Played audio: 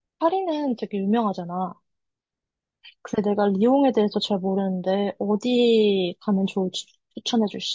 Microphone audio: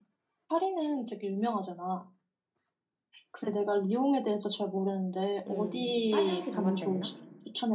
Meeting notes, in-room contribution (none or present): present